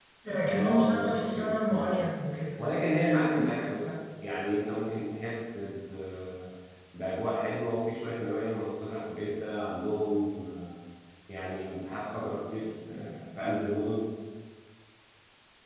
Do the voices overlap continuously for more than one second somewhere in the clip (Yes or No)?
Yes